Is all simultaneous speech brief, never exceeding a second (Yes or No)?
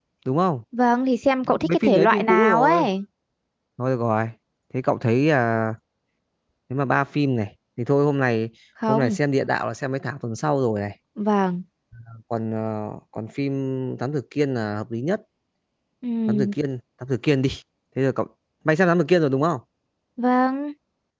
No